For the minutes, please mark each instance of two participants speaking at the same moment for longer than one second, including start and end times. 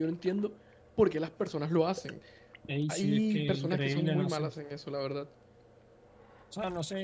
2.9-4.5

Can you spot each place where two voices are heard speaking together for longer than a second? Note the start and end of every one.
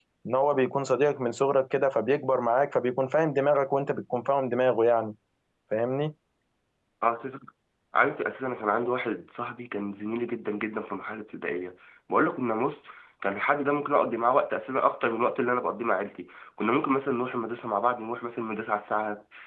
none

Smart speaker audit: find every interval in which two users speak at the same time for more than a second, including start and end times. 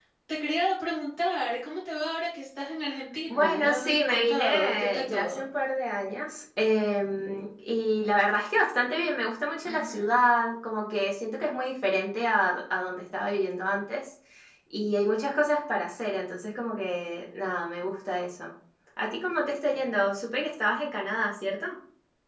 3.3-5.4

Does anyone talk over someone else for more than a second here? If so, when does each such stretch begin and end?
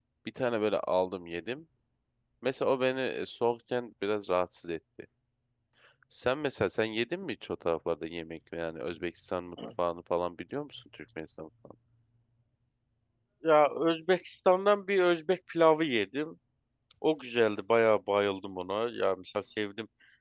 none

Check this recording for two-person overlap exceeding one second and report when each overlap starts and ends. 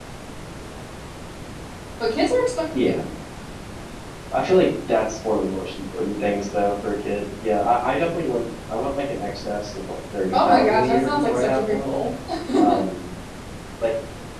10.3-12.0

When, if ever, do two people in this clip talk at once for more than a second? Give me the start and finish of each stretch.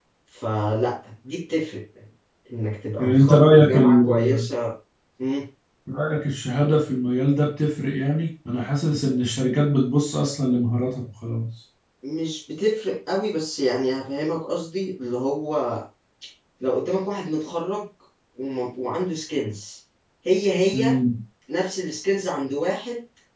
3.0-4.4

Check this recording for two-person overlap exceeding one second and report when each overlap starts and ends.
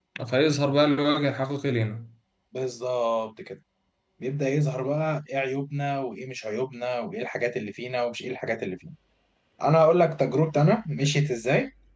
none

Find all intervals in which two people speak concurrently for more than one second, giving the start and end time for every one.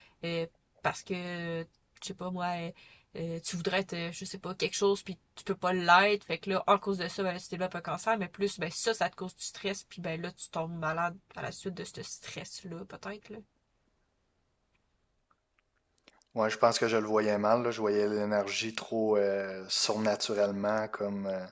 none

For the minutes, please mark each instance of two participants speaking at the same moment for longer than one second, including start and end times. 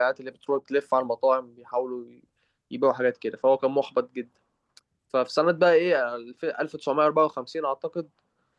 none

